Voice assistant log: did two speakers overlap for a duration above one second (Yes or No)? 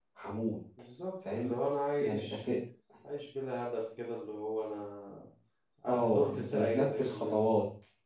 Yes